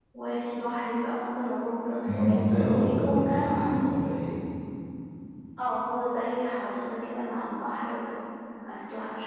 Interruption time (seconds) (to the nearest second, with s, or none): 2 s